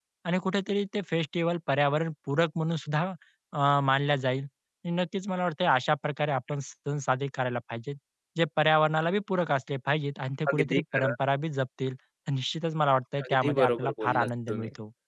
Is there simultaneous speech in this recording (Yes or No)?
Yes